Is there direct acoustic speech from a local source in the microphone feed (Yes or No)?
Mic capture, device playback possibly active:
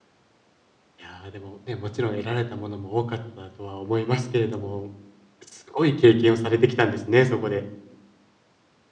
Yes